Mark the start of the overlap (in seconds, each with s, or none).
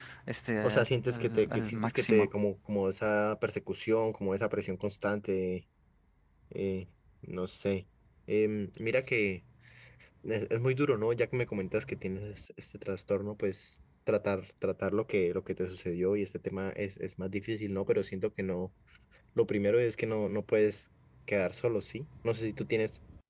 0.6 s